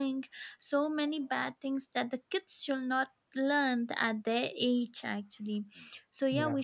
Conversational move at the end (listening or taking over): listening